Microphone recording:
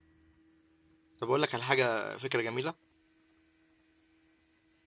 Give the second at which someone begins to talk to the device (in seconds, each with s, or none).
1.2 s